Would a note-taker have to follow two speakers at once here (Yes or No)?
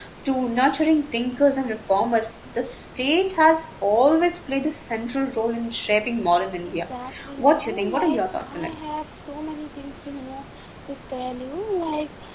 Yes